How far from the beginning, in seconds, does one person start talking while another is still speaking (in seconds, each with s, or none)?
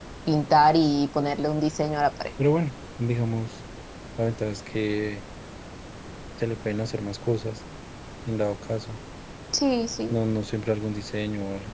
none